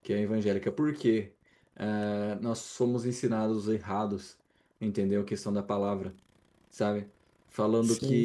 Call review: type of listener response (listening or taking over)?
listening